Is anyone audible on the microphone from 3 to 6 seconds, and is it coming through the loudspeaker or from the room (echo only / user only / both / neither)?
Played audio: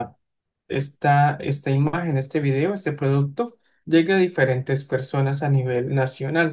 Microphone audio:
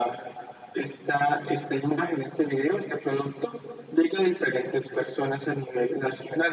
echo only